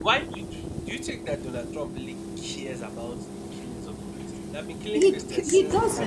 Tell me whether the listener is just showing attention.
No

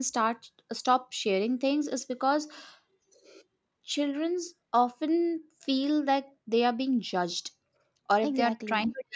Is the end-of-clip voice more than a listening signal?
No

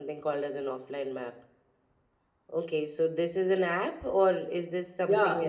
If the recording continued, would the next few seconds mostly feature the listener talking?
Yes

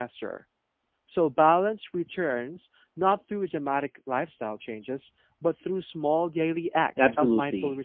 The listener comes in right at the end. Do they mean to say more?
Yes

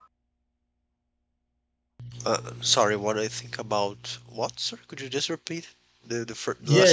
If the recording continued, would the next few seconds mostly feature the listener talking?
Yes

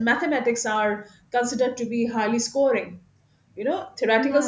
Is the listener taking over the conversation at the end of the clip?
No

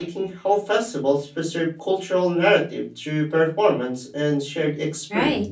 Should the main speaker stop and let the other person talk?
Yes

